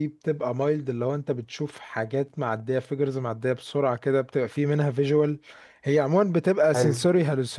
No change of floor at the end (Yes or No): Yes